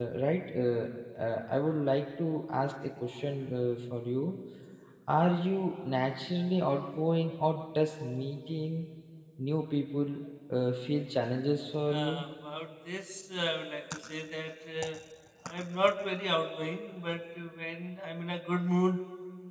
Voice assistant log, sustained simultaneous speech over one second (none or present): none